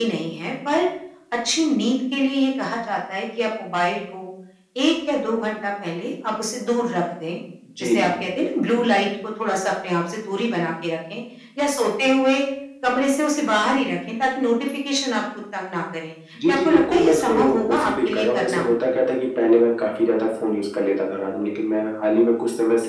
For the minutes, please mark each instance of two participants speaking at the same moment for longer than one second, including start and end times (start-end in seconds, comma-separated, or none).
16.5-18.6